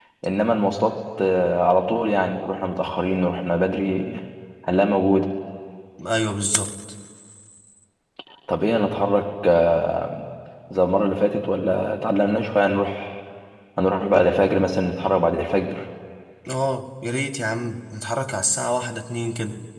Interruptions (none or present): none